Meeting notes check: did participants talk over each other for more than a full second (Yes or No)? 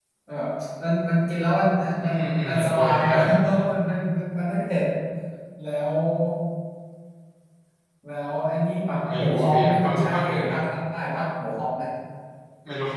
Yes